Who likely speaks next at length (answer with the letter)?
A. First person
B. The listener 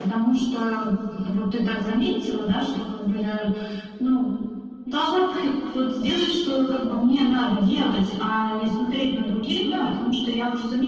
A